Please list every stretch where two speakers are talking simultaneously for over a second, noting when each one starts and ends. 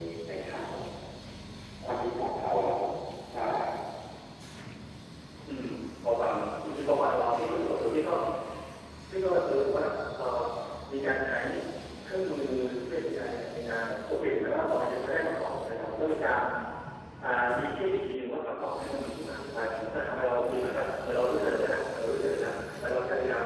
none

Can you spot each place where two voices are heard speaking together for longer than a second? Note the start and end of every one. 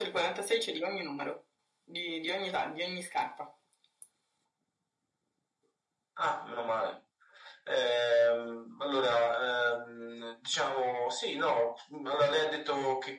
none

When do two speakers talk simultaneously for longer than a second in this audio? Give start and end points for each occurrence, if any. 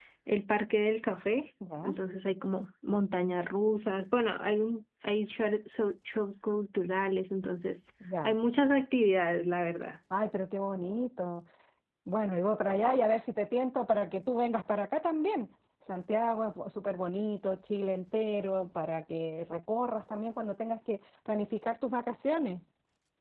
none

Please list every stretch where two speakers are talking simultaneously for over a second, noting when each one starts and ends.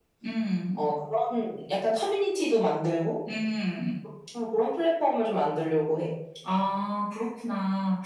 none

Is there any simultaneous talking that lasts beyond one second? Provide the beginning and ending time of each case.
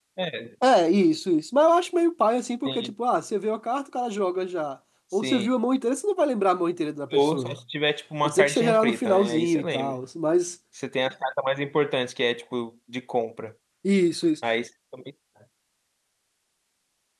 8.2-10.0

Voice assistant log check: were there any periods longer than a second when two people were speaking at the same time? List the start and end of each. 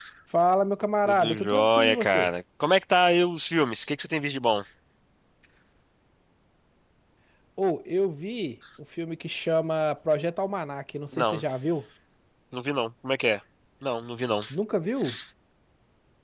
1.0-2.3

